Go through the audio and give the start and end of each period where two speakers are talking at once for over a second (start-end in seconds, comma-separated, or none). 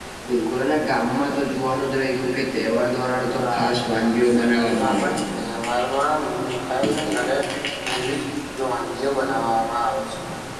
3.3-5.2